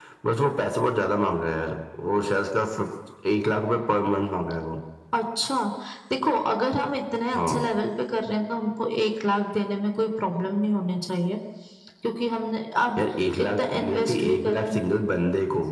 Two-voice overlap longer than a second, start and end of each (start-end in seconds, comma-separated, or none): 13.5-14.7